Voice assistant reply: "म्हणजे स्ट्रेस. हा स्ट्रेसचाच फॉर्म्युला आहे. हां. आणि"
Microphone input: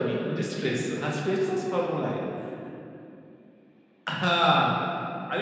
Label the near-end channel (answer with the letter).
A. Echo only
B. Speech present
A